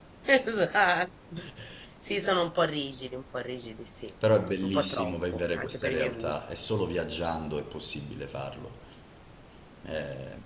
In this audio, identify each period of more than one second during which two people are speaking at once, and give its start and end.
4.6-6.4

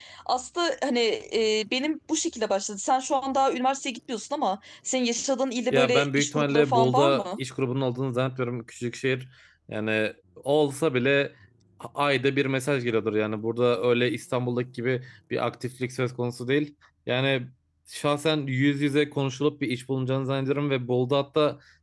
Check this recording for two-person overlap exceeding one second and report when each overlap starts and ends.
5.7-7.4

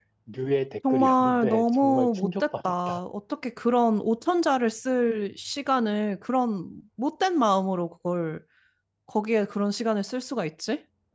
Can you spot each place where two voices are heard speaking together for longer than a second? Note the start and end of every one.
0.9-3.0

